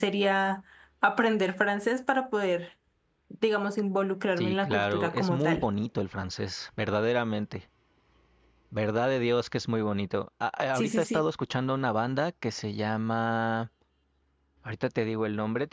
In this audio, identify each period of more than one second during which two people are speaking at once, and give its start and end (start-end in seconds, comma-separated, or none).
4.4-5.7